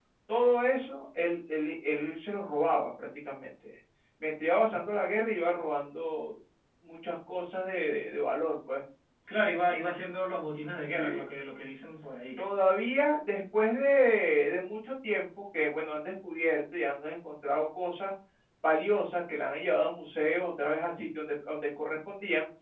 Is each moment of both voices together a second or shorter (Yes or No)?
Yes